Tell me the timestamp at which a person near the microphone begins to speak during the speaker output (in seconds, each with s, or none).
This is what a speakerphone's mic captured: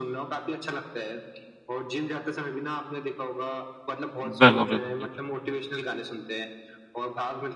4.2 s